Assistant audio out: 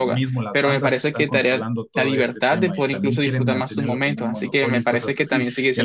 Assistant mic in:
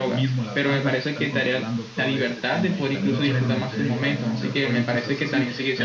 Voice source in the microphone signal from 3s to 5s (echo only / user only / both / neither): both